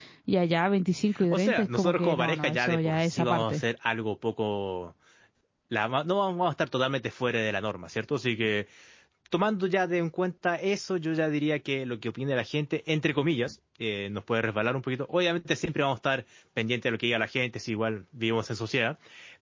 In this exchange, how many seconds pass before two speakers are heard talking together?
1.3 s

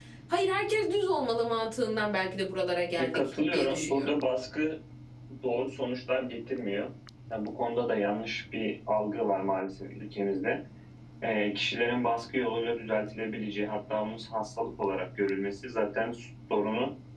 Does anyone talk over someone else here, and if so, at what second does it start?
3.0 s

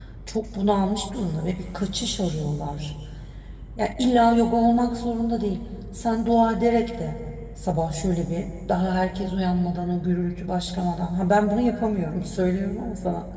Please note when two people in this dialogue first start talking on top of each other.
none

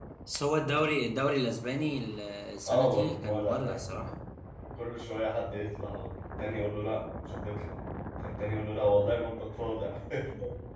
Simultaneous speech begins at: 2.6 s

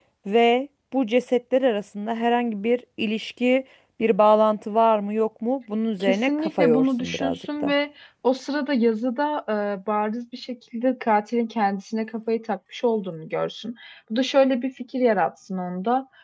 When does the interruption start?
6.0 s

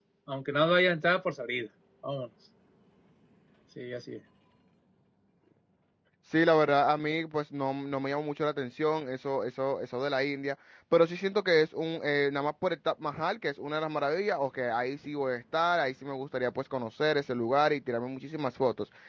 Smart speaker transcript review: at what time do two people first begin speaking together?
none

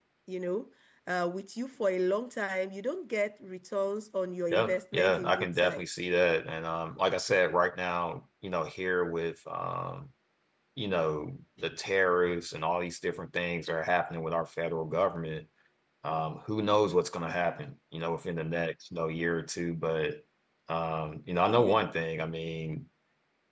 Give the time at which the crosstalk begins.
4.5 s

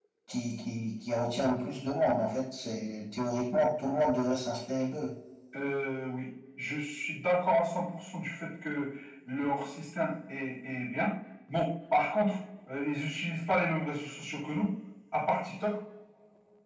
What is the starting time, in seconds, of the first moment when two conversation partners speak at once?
none

